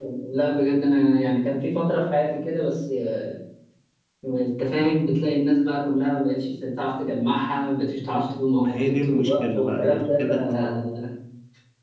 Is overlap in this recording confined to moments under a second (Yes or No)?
No